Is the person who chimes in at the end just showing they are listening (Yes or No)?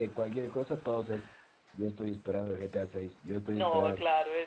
No